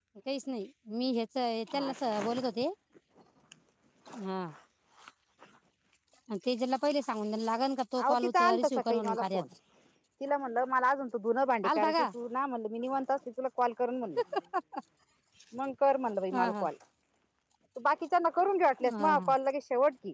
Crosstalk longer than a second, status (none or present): present